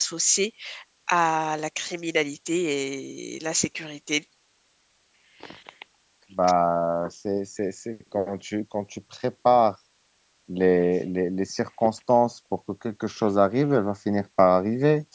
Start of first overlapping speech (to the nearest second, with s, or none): none